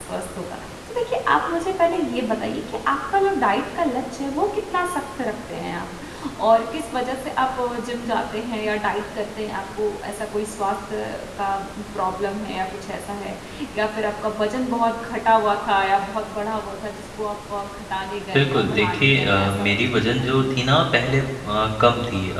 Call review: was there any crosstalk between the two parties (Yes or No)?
Yes